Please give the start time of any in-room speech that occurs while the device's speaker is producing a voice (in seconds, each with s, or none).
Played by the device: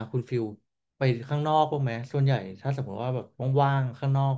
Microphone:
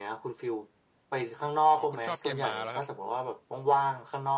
1.8 s